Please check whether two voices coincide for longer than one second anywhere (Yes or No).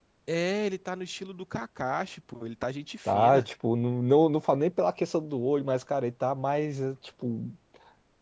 No